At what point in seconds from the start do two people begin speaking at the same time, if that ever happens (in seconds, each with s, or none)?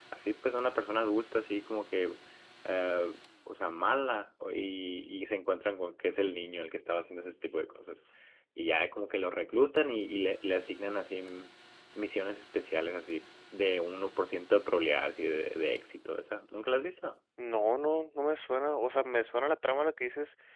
none